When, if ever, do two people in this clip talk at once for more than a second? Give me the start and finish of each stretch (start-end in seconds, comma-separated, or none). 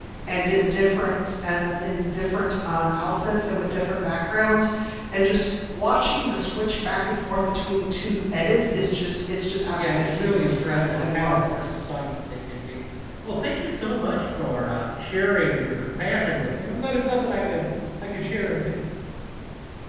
9.7-11.7